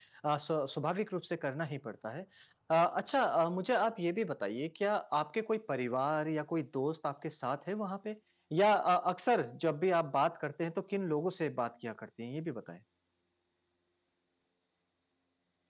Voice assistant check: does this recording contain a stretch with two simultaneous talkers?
No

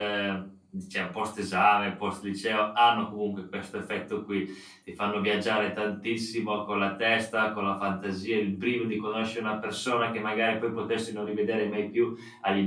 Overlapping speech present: No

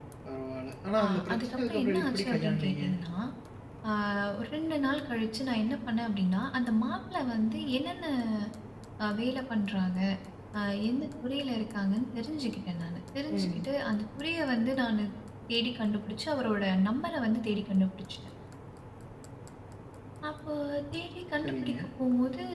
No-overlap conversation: No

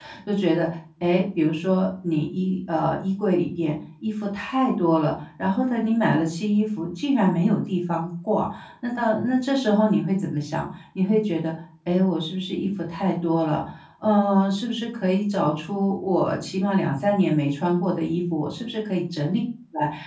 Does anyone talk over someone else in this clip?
No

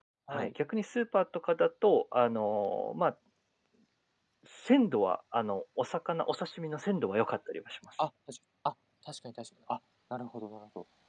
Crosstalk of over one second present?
No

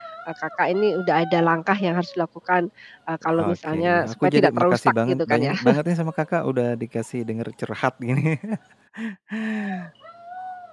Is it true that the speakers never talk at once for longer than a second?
No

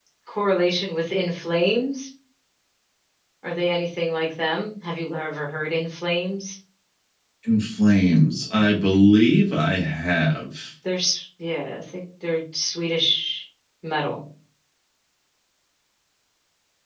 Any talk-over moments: No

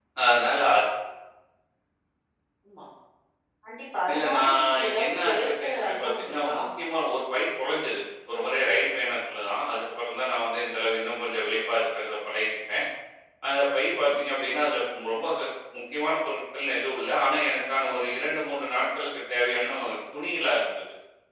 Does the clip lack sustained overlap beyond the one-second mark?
No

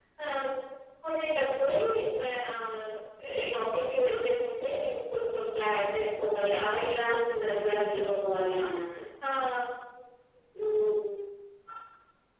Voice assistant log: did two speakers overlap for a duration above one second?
Yes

